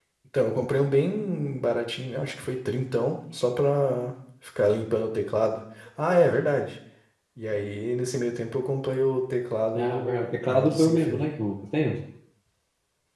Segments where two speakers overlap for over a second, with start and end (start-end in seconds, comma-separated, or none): 9.7-11.2